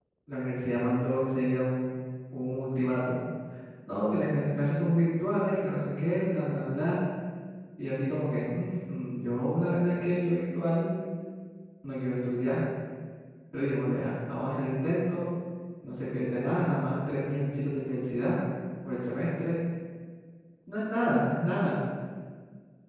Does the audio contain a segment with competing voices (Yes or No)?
No